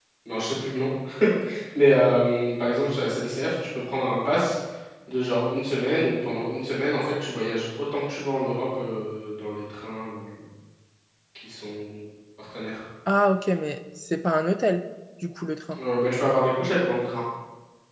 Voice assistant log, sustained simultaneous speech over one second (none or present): none